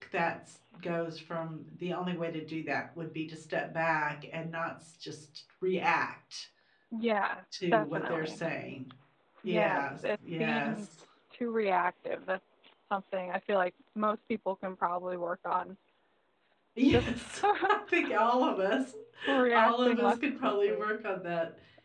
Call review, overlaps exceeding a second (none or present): present